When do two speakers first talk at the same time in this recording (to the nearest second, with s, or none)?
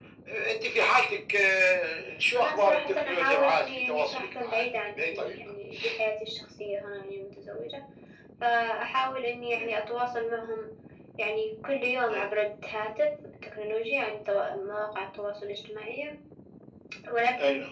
2 s